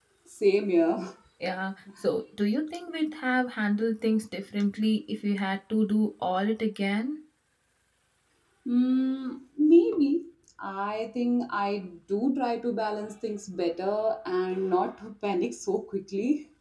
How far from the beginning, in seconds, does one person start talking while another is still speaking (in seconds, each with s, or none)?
none